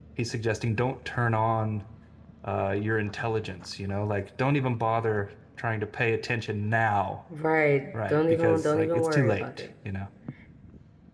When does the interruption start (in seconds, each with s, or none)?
8.1 s